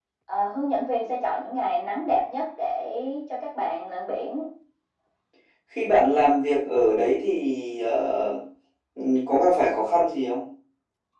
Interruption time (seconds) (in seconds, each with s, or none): none